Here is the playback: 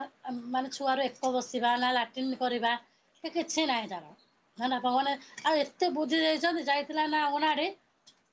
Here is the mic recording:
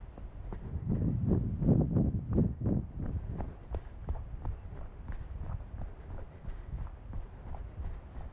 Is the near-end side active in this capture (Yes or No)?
No